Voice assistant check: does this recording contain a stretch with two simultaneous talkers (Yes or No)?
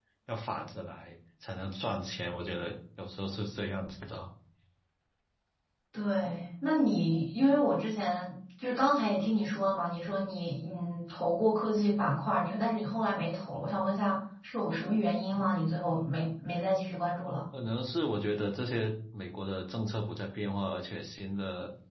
No